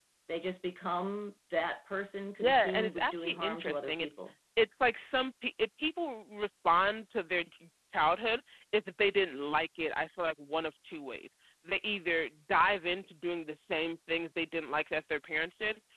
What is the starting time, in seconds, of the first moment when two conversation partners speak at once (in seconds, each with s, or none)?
2.4 s